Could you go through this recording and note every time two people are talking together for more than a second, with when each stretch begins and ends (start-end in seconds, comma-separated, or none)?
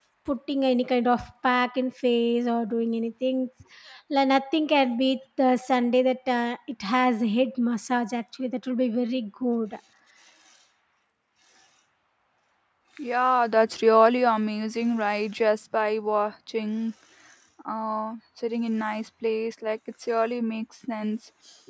none